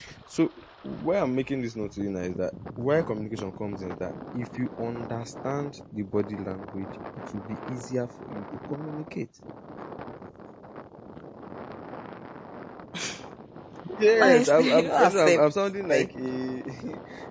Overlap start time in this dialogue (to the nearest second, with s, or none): 14 s